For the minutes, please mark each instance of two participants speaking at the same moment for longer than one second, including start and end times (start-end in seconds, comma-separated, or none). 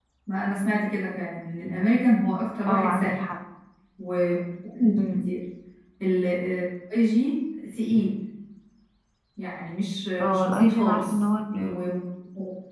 10.2-11.9